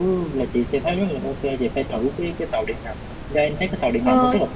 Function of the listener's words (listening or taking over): taking over